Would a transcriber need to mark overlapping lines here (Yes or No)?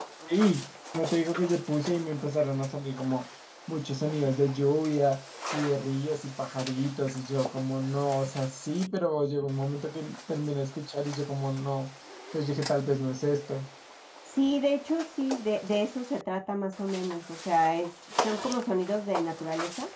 No